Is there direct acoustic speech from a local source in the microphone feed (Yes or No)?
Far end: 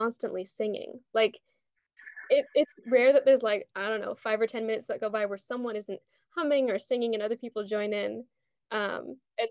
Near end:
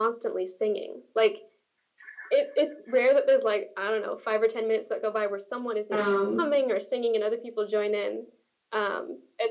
Yes